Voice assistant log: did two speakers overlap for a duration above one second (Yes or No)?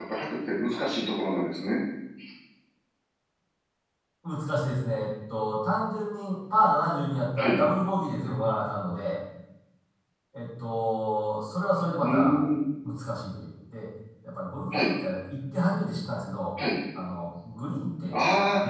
No